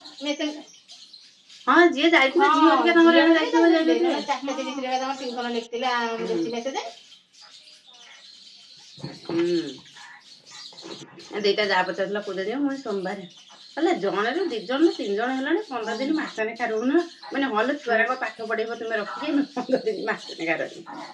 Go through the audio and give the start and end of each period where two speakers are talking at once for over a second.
2.4-4.2

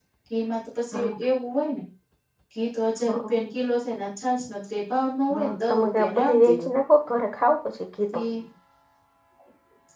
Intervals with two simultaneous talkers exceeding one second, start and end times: 5.3-6.7

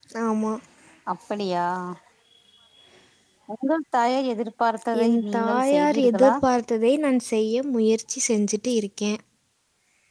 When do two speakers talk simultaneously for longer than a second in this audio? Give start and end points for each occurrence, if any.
5.0-6.3

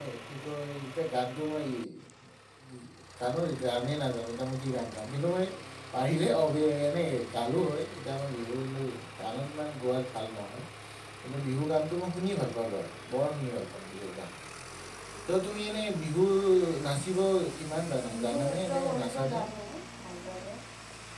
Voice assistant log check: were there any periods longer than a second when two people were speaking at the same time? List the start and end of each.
18.1-19.4

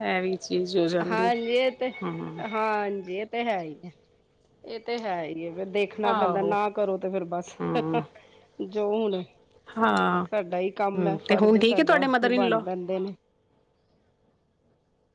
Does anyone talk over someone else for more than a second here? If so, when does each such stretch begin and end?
11.0-12.6

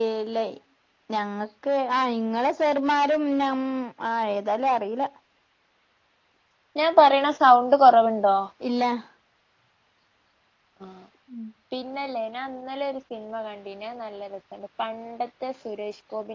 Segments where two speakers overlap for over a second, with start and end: none

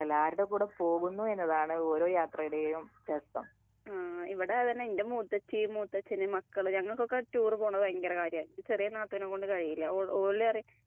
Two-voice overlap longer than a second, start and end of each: none

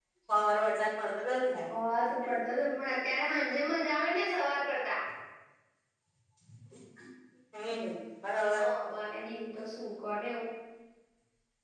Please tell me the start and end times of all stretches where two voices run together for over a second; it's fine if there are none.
none

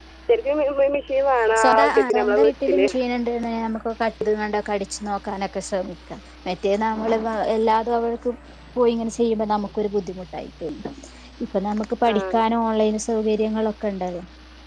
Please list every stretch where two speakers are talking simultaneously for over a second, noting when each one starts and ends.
1.6-2.9

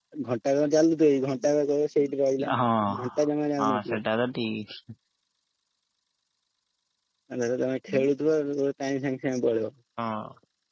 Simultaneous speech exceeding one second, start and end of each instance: none

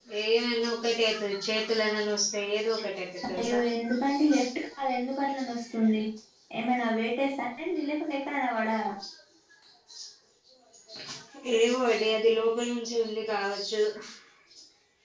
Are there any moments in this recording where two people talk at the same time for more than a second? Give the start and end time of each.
none

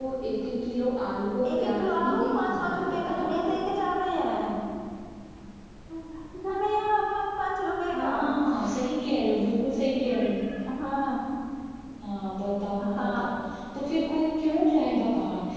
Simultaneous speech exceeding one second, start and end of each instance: 1.5-3.6

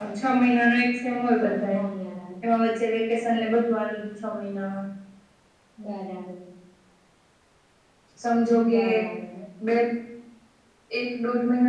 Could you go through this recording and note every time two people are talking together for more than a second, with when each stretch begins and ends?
none

